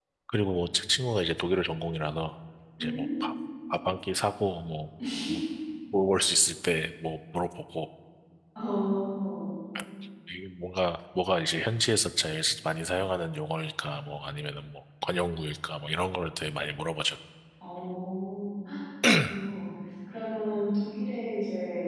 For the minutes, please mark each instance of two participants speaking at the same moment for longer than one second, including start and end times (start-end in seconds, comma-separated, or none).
none